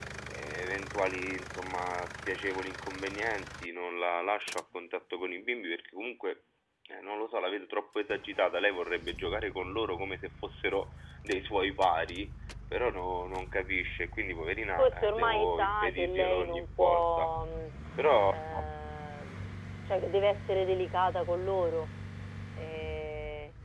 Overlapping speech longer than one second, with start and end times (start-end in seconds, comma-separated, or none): 14.8-17.3